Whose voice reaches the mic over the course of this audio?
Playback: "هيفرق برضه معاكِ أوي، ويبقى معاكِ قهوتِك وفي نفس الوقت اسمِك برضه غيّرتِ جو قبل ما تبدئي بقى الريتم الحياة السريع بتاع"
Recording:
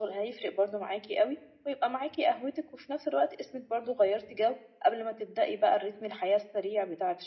echo only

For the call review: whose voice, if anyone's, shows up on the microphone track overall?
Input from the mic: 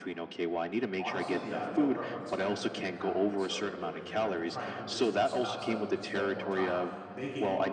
both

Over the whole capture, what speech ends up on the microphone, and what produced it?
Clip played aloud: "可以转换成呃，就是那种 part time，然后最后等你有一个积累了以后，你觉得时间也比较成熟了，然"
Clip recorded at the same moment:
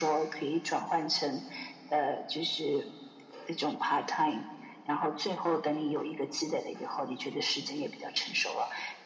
echo only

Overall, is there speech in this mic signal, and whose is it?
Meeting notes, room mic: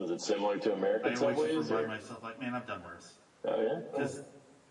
both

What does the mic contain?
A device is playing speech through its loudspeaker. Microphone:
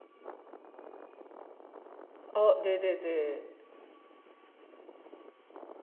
user only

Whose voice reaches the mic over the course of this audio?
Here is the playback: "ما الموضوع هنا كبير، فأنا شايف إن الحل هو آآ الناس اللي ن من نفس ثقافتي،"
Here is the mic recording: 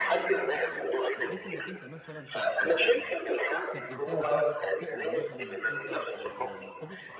both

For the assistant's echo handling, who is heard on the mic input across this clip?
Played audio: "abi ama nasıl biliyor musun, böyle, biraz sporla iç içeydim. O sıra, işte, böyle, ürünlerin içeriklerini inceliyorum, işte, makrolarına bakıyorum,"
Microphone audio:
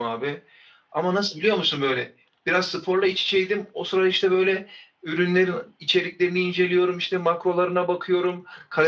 echo only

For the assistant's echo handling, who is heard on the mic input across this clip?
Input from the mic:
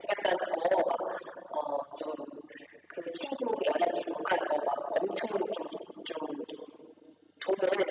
echo only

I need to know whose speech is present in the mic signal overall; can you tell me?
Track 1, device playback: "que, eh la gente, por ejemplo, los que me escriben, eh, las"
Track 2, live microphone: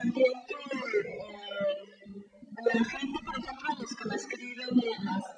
echo only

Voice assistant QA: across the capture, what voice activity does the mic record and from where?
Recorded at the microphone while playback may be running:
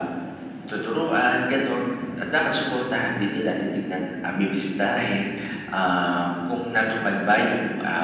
echo only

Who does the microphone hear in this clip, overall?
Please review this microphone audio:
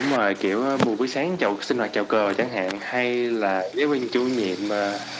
echo only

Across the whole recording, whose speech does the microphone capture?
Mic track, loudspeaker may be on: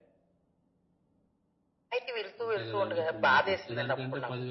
both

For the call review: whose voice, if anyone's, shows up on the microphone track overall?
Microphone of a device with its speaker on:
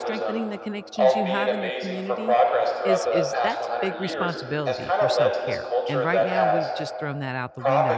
both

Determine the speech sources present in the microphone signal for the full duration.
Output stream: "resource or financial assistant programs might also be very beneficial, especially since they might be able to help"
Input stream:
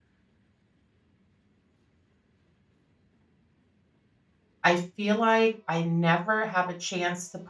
user only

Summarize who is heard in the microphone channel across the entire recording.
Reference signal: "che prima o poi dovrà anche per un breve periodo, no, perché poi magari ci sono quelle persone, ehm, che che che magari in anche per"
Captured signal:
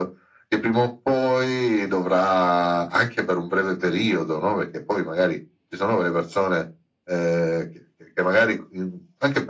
echo only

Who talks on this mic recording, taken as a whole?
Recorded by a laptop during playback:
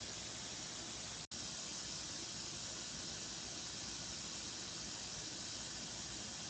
neither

